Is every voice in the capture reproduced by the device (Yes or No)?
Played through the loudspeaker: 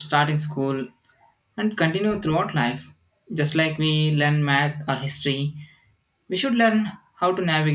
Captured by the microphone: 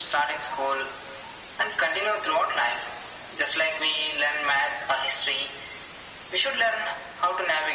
Yes